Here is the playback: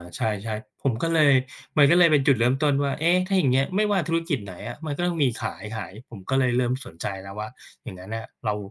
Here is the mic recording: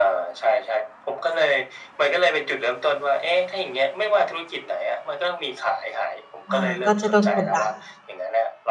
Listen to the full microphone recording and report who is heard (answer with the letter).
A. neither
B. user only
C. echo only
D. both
D